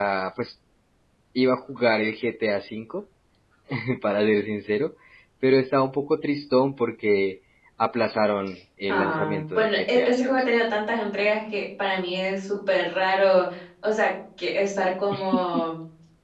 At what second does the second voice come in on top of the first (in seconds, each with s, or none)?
8.9 s